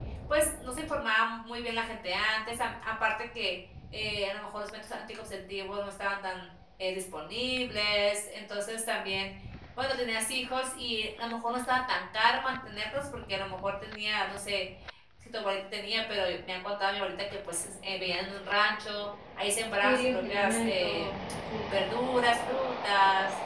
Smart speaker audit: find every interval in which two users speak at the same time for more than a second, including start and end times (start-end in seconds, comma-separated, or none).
19.8-21.1